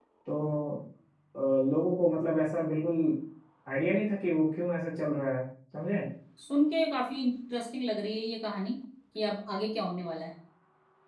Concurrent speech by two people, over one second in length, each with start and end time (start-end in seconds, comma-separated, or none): none